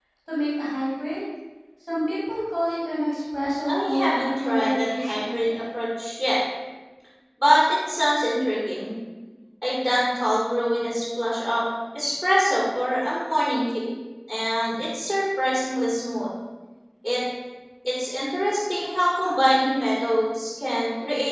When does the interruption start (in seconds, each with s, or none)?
3.6 s